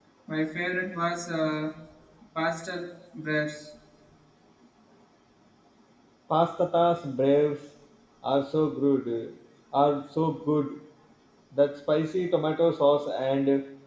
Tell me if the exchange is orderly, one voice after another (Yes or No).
Yes